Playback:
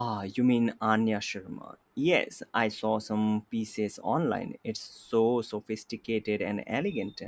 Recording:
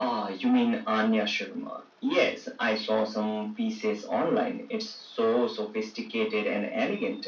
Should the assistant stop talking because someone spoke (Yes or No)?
No